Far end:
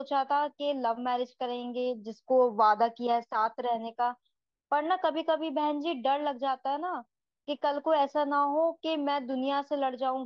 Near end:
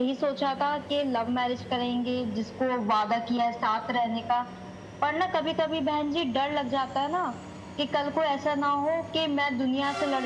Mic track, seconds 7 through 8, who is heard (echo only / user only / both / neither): echo only